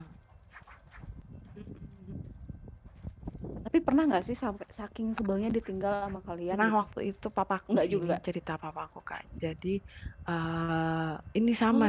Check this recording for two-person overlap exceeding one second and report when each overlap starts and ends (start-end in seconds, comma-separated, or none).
none